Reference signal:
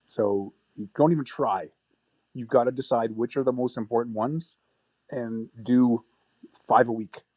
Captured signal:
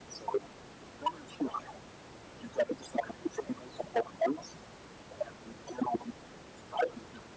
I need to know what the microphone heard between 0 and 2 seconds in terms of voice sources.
echo only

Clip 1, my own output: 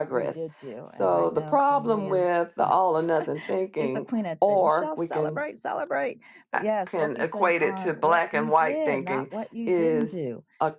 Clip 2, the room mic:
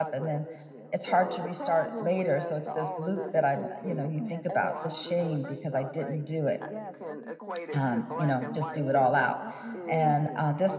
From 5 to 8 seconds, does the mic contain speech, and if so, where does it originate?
both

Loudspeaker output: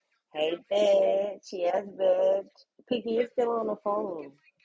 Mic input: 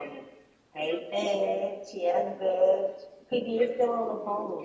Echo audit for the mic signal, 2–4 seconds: echo only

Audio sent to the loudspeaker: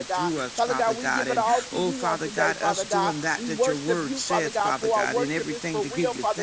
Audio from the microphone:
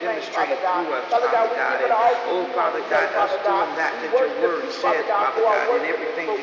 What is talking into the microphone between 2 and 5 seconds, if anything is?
echo only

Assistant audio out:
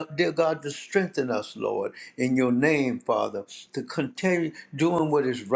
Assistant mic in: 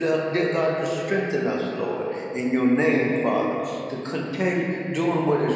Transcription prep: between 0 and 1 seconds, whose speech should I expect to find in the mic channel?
echo only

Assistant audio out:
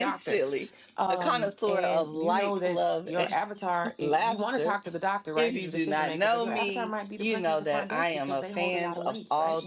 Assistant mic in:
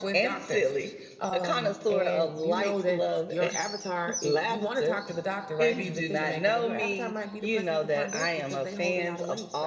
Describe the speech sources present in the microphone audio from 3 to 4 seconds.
echo only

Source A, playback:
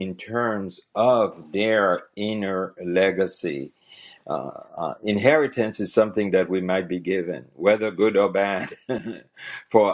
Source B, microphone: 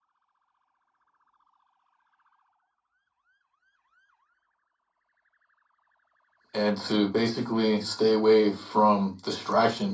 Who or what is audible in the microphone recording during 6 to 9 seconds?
user only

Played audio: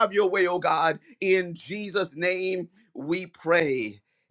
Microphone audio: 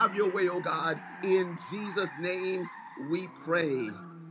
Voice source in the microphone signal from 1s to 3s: echo only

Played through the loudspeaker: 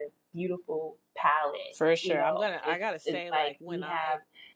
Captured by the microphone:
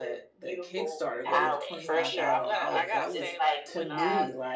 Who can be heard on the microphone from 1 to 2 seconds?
both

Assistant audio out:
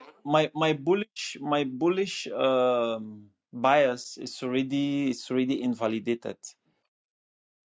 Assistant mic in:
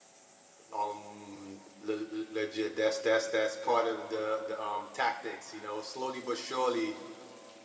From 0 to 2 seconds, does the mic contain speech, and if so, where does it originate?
user only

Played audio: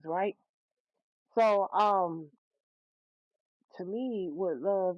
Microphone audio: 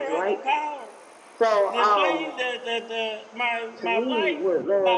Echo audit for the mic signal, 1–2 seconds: both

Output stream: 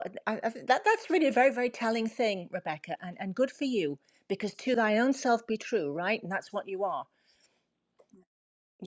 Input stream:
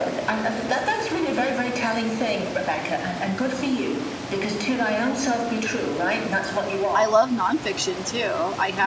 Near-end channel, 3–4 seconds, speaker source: echo only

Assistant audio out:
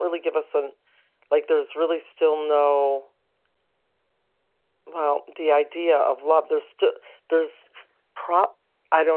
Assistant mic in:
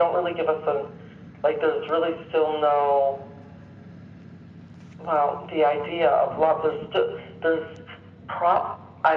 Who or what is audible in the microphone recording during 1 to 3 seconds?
echo only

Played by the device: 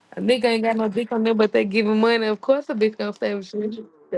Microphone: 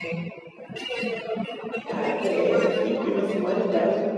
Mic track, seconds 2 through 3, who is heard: both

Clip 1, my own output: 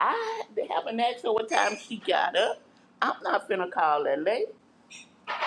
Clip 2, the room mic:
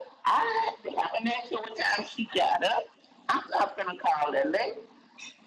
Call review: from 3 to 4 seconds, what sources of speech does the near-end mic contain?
echo only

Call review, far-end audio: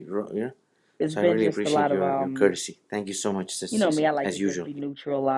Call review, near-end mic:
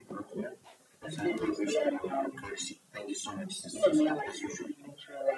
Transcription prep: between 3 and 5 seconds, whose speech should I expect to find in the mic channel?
echo only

